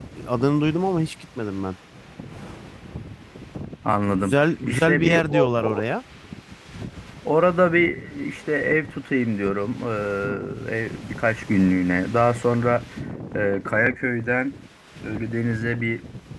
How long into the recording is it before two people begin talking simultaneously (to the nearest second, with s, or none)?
4 s